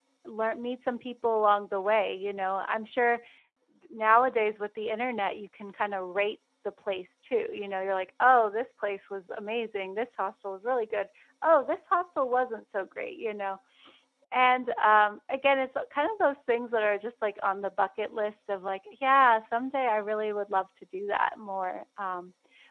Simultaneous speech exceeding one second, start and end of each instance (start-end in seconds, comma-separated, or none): none